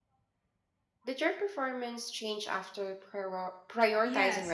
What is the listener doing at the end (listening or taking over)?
taking over